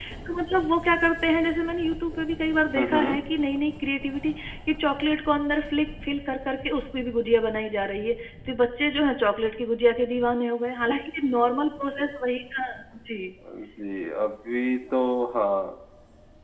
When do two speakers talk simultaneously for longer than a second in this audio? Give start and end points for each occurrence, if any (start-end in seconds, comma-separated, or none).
none